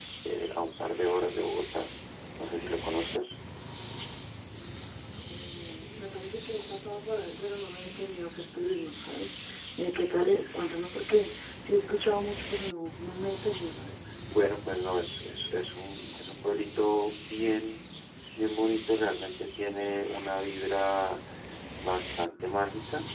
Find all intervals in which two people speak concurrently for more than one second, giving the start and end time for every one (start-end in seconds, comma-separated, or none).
none